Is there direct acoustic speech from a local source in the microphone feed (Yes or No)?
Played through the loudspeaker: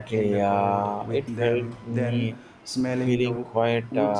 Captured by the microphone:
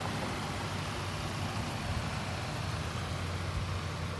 No